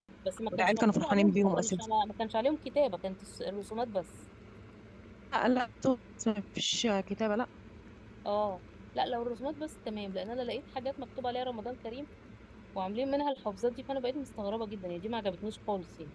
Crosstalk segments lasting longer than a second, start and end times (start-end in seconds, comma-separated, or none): 0.5-1.9